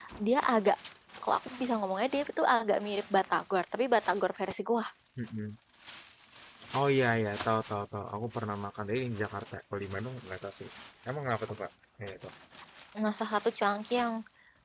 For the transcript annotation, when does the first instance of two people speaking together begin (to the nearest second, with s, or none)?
none